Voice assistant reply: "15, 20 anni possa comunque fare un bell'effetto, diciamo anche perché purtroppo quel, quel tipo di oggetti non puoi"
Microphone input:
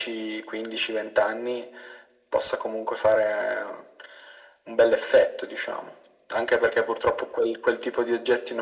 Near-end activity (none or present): none